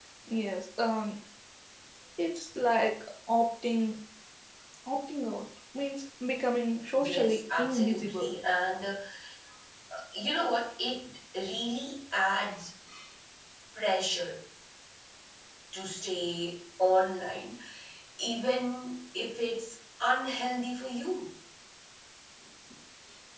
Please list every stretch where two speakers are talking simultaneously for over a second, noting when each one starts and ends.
7.0-8.3

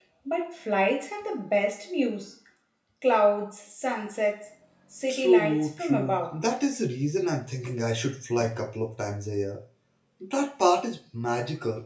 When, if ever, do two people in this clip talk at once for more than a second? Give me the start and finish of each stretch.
5.1-6.4

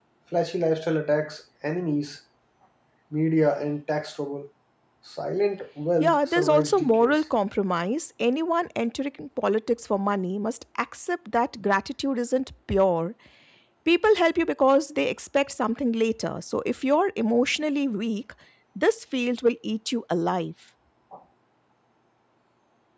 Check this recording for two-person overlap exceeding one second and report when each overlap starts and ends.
6.0-7.2

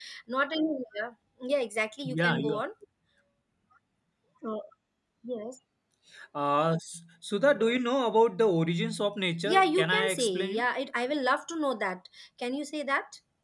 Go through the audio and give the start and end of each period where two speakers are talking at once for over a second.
9.4-10.6

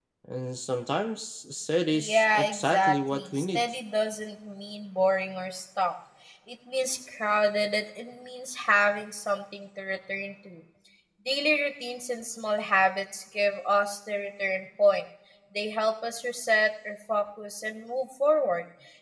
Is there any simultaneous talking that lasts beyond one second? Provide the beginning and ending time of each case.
1.9-3.6

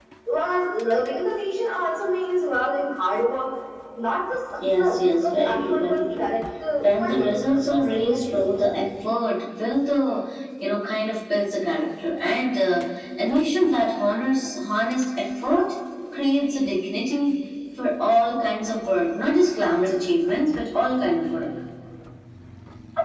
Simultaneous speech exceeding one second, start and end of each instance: 4.8-6.3, 6.8-8.2

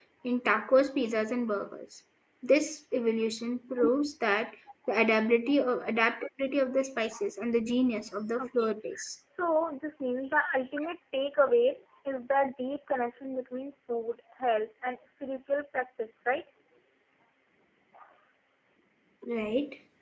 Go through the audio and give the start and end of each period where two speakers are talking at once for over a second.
none

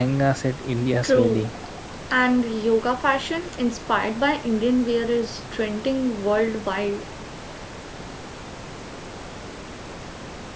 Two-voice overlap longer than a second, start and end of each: none

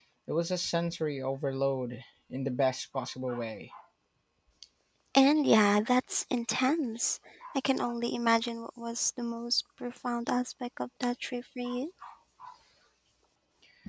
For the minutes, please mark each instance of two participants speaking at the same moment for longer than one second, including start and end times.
none

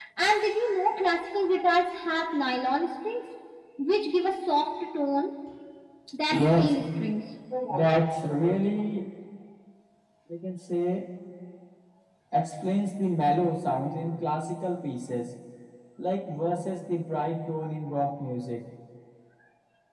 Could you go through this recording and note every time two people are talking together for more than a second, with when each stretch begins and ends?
none

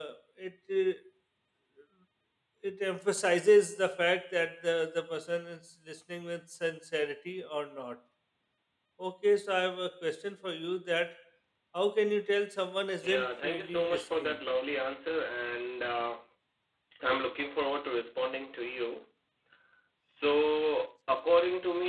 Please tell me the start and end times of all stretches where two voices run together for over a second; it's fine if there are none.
13.0-14.3

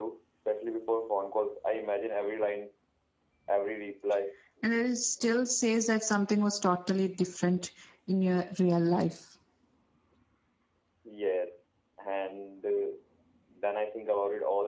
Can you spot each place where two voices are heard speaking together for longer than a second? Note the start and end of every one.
none

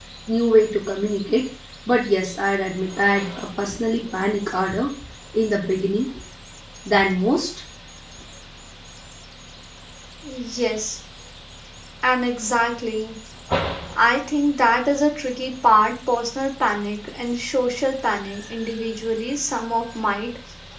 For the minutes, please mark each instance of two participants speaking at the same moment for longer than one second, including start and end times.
none

